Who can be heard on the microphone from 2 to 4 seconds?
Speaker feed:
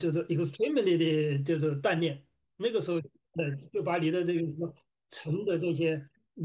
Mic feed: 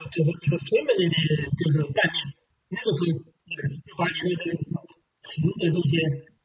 echo only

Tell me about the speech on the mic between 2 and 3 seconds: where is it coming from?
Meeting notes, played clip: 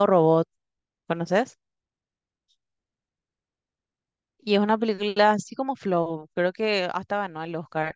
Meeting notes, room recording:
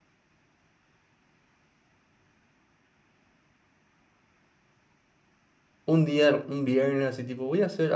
neither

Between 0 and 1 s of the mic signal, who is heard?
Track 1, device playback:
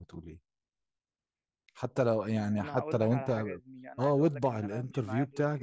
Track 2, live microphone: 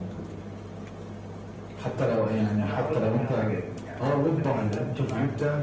echo only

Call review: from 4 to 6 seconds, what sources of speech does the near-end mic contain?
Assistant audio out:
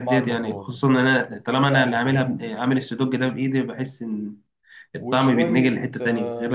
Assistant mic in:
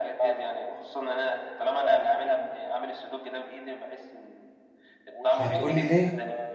both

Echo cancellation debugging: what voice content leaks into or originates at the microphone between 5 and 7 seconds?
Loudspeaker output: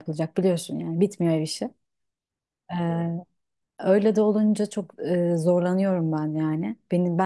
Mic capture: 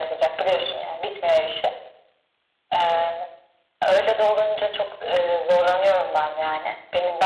echo only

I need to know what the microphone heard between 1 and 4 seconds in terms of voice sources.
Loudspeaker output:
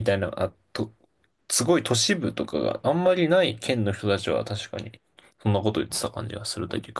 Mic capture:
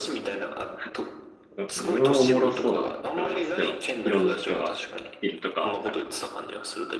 both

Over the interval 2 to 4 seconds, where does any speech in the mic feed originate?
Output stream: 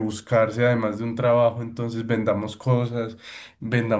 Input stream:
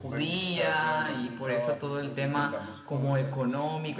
both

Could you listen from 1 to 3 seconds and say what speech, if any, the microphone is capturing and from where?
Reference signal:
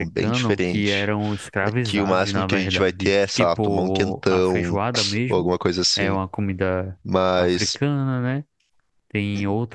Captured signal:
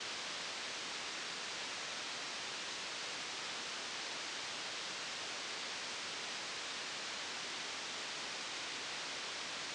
neither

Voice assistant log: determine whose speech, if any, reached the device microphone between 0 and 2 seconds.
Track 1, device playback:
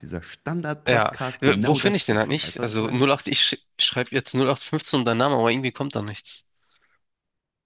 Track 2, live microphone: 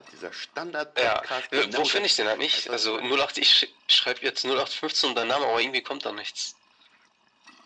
echo only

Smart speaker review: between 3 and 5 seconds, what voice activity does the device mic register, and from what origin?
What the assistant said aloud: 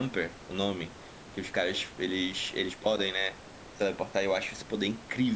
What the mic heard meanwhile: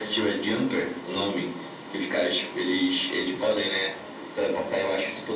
echo only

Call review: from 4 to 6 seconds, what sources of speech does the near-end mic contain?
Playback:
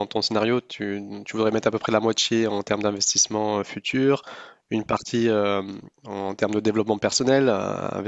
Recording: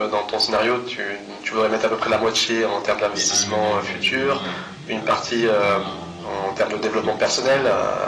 both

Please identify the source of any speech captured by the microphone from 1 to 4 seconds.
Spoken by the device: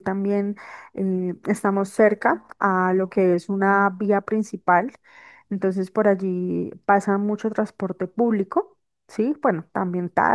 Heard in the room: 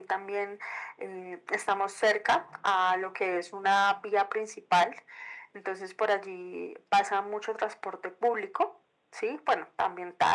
echo only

